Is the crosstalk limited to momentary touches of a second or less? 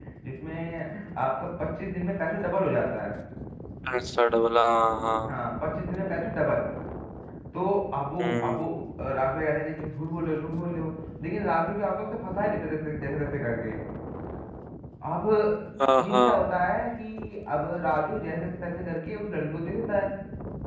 Yes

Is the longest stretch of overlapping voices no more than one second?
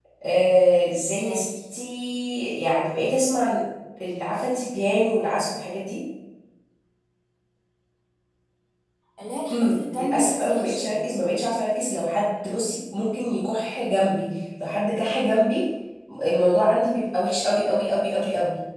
No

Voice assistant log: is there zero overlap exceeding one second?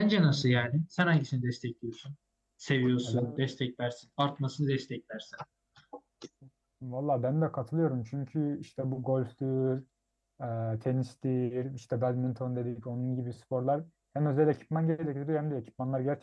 Yes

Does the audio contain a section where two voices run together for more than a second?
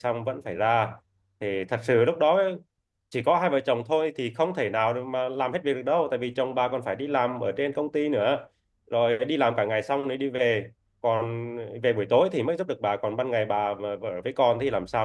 No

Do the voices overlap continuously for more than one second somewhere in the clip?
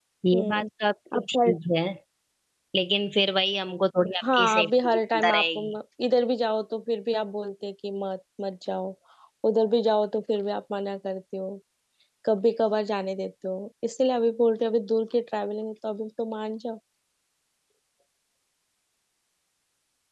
Yes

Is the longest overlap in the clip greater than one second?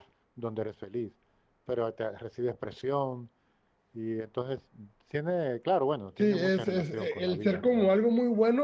Yes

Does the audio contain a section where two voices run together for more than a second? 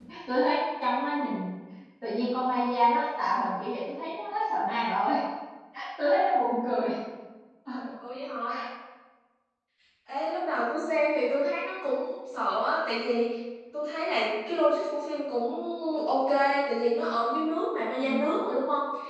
No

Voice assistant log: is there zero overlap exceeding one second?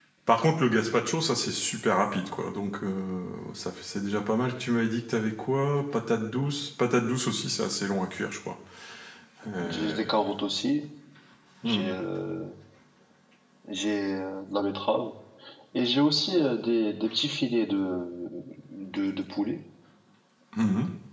Yes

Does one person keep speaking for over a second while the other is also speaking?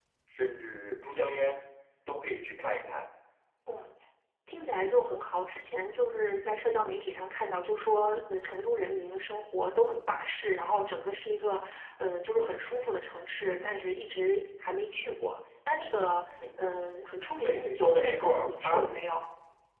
Yes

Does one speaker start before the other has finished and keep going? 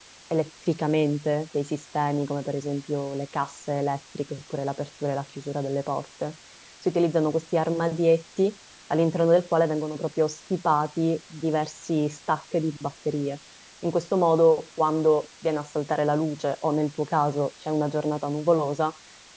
No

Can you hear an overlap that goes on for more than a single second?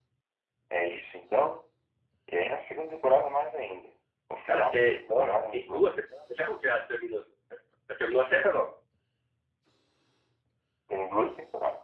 Yes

